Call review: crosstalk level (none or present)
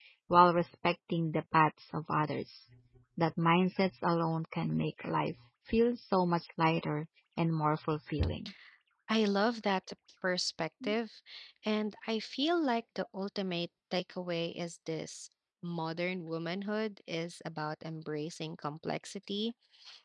none